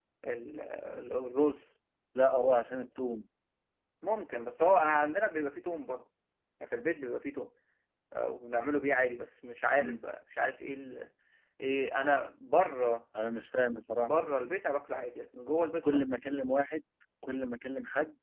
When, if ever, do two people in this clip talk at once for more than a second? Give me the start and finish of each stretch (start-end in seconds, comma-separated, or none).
none